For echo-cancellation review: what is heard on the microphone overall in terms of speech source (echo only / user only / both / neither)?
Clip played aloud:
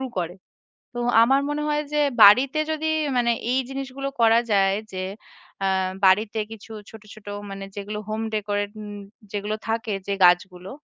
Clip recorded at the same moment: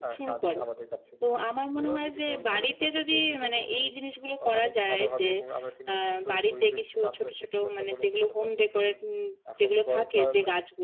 both